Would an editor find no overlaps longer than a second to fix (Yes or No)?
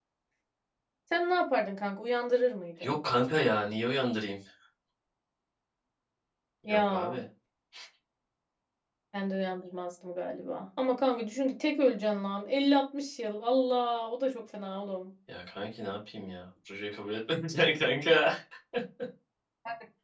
Yes